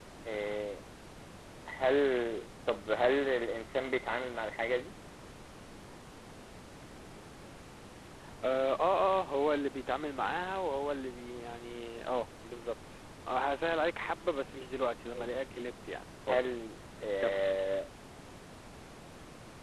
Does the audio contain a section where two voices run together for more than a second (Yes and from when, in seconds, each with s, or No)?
No